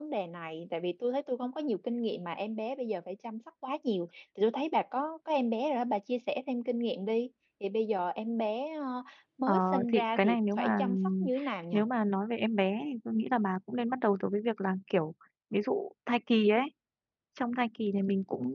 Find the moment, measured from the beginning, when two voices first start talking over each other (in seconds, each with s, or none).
9.5 s